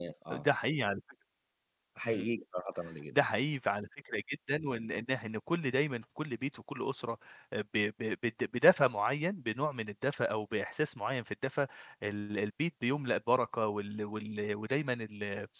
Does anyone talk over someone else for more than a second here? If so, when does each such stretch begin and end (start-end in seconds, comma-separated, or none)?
none